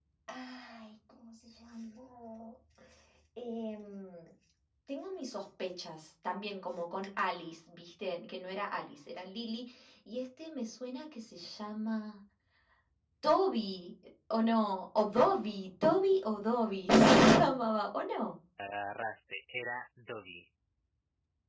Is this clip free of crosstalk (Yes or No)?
Yes